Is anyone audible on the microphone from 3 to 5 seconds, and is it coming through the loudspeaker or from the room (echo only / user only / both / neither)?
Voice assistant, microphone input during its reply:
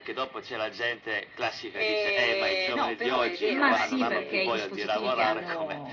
both